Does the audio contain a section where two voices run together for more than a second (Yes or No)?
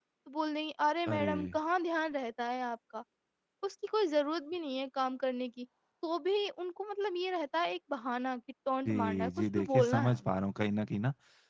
Yes